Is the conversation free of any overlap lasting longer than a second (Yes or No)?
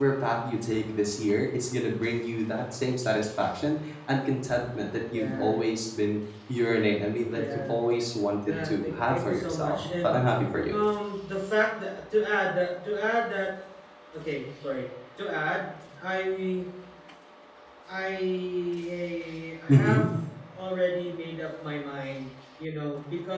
No